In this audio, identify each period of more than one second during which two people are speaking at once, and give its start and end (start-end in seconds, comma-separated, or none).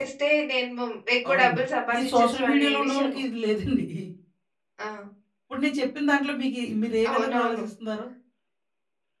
2.0-3.2